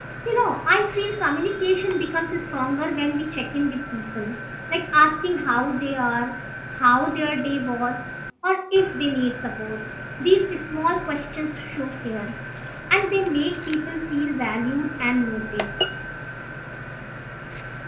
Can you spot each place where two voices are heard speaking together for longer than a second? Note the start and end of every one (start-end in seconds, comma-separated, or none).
none